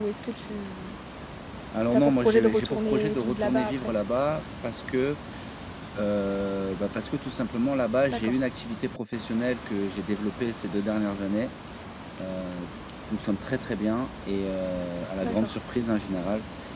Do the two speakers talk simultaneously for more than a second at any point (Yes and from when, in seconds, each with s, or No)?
Yes, from 1.9 s